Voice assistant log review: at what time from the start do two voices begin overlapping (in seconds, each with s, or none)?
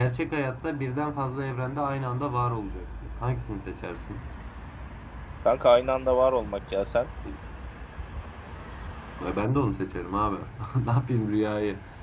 none